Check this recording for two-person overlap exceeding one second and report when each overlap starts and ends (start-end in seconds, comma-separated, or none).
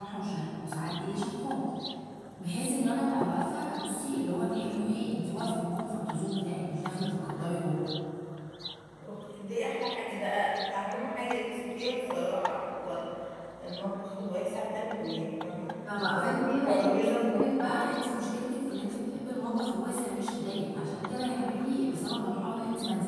16.1-17.5